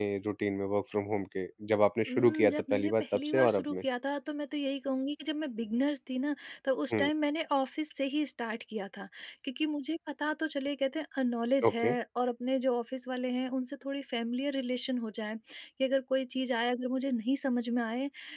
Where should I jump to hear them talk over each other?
2.1 s

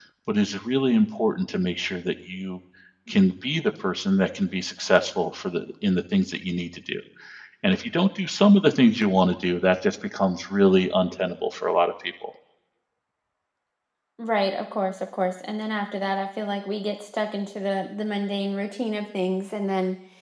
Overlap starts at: none

